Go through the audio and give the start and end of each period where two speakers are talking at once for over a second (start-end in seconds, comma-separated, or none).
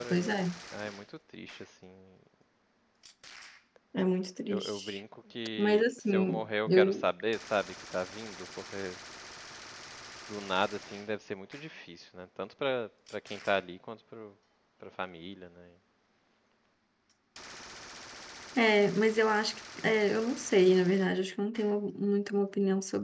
5.6-7.0